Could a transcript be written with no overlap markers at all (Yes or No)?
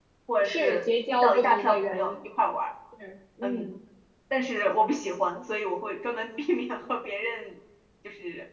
No